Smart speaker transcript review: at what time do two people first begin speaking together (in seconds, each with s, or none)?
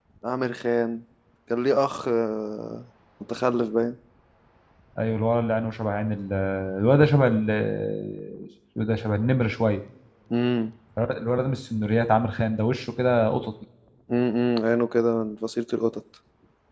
none